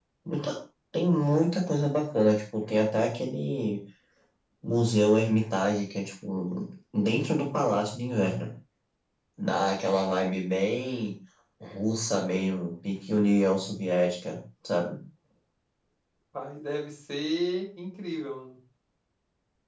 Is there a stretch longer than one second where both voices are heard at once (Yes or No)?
No